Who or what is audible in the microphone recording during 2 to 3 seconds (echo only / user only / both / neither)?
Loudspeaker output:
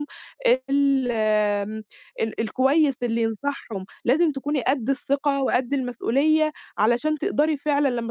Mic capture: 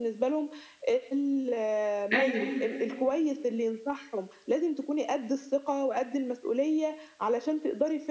both